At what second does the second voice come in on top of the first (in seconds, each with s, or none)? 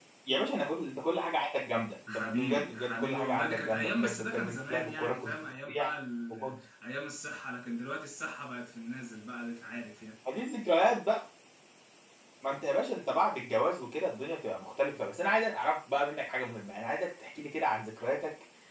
2.1 s